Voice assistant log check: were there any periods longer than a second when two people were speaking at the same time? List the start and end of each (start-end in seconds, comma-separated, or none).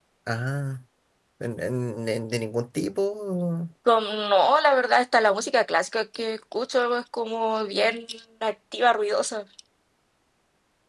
none